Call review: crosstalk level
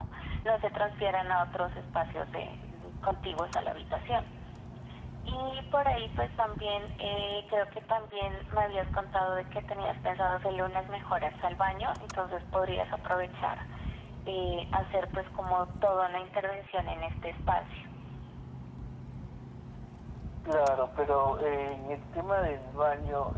none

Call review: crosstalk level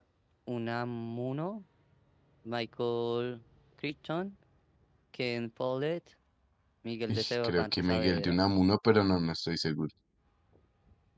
present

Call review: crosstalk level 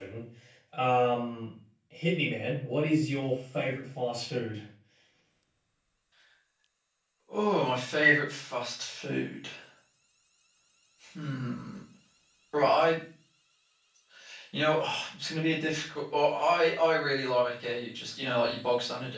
none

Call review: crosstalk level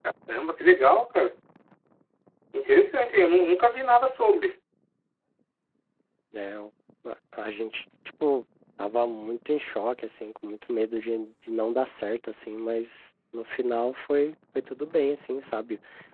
none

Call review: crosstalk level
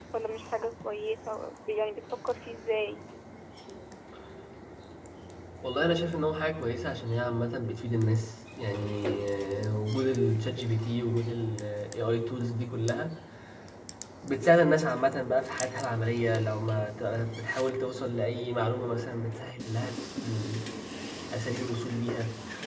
none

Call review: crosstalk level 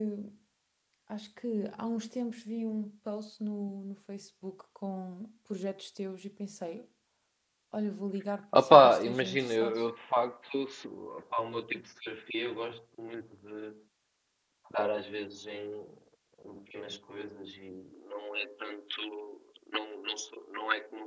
present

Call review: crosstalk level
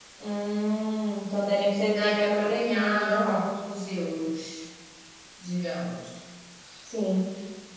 present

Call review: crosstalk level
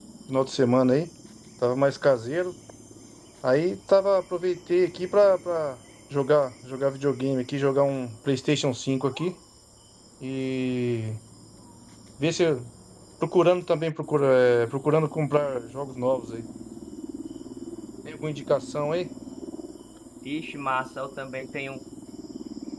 none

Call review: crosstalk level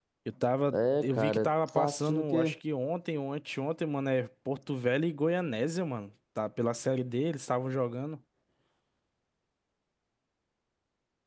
present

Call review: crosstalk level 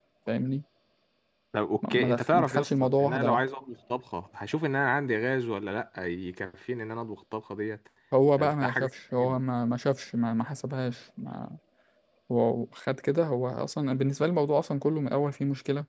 present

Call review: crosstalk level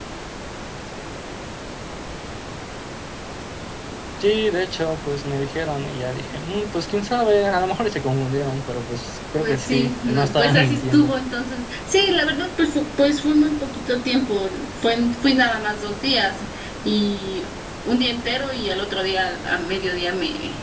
present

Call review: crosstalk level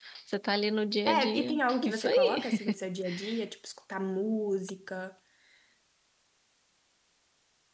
present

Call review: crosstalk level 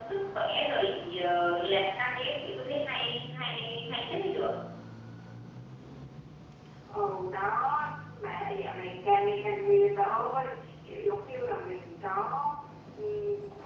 none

